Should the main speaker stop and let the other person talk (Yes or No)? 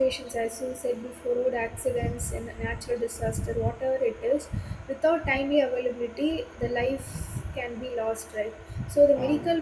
No